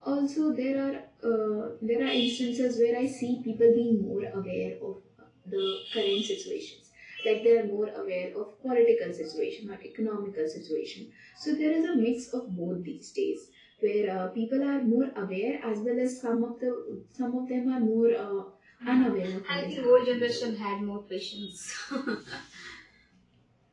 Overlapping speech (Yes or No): Yes